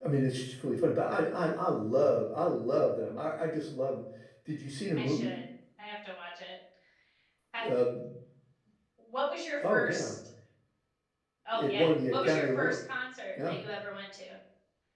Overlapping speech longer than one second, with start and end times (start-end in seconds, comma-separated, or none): 11.5-12.8